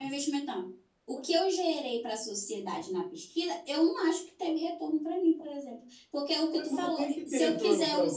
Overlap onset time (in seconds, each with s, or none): 6.5 s